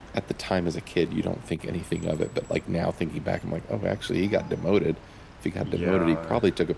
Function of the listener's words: listening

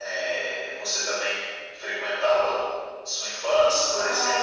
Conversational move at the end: taking over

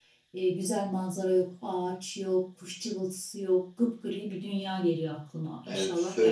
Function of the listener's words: taking over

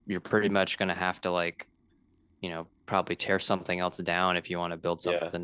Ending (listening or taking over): taking over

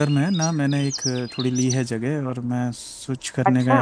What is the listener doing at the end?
listening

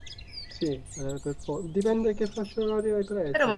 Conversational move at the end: taking over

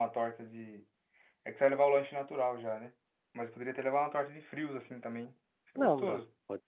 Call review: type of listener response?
taking over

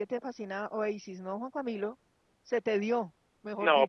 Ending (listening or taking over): taking over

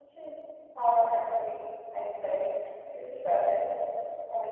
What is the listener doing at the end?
listening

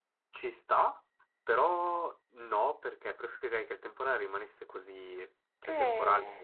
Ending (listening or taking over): listening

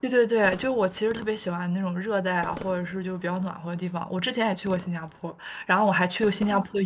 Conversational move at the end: listening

